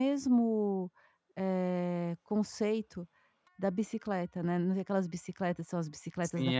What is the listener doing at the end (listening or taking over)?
taking over